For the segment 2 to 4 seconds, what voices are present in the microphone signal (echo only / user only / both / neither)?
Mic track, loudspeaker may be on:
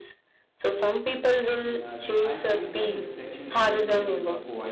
both